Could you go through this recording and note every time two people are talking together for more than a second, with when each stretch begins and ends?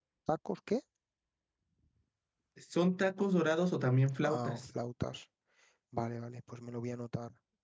none

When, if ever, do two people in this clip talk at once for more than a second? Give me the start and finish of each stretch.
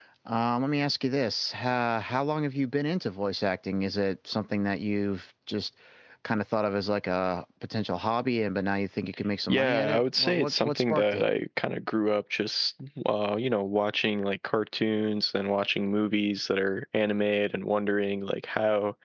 9.5-11.2

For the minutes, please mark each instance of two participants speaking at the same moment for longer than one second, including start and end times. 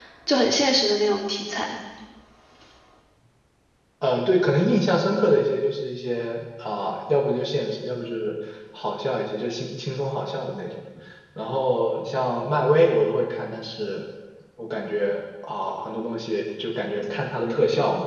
none

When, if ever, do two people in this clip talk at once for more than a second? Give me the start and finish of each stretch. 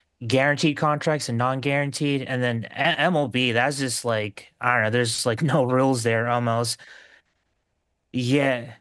none

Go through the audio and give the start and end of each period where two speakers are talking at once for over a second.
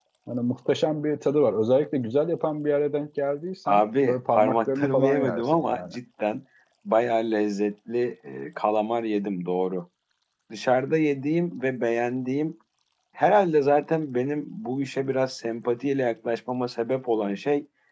3.7-5.9

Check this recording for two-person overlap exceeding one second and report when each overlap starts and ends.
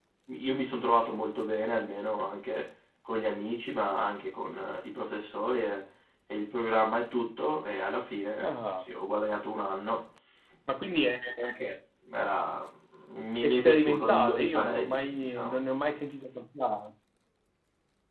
13.4-15.6

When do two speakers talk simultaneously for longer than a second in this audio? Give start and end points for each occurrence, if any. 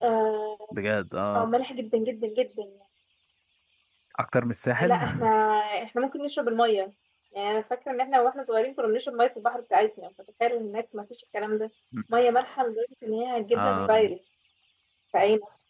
none

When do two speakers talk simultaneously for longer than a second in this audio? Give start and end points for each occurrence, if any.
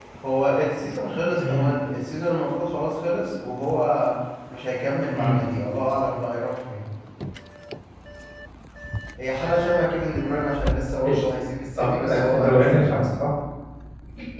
11.8-13.0

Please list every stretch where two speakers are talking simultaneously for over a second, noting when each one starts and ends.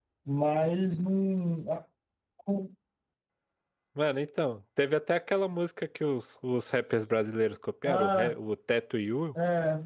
none

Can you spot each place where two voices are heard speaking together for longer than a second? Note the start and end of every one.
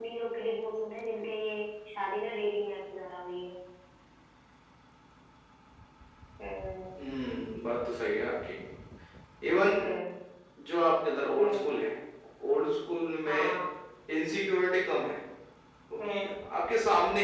none

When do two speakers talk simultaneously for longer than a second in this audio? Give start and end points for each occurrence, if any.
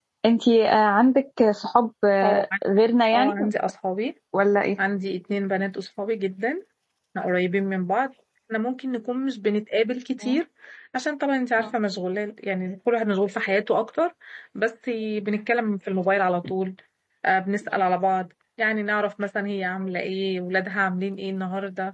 none

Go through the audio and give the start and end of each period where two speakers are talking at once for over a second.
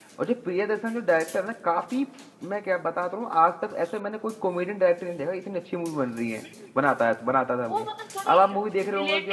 none

